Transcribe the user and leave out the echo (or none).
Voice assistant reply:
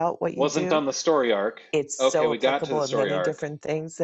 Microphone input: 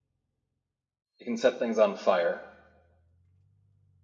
it can set things on fire.